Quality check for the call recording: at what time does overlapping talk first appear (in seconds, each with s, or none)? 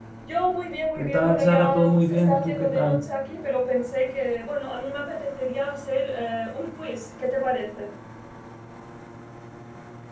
1.0 s